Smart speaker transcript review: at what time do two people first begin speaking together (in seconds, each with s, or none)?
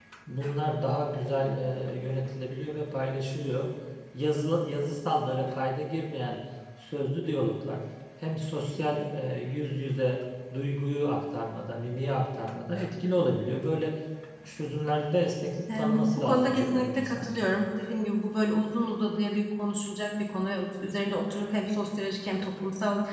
15.7 s